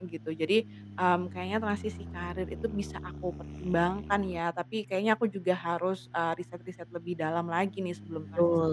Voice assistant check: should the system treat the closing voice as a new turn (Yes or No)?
Yes